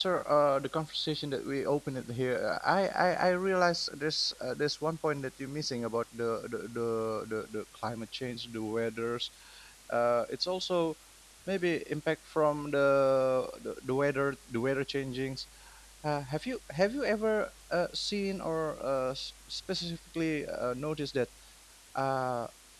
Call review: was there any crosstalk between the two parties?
No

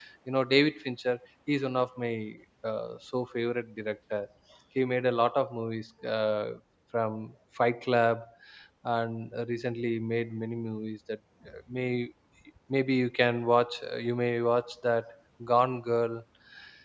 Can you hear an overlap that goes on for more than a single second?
No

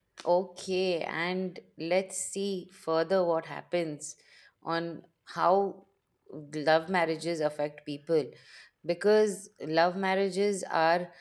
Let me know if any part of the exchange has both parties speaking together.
No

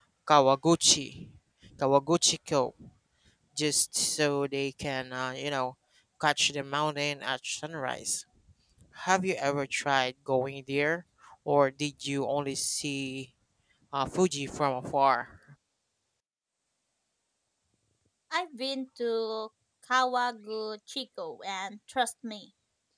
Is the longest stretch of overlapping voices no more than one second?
Yes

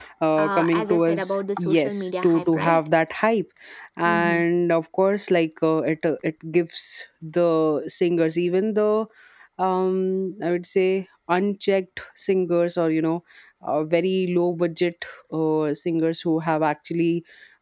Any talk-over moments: Yes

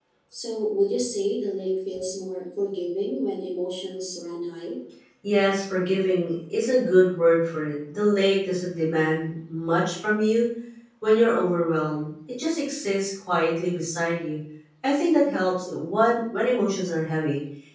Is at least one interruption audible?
No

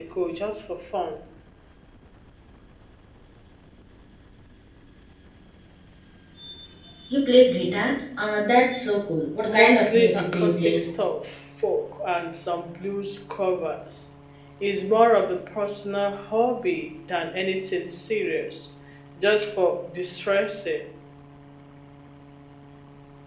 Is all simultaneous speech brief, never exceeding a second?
No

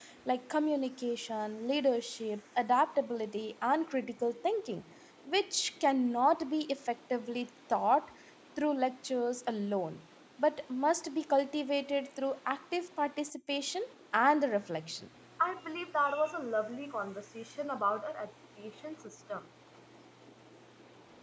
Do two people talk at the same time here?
No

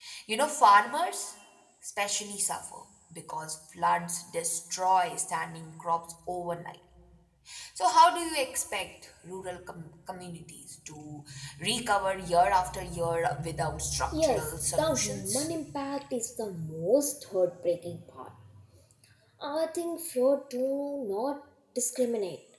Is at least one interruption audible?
Yes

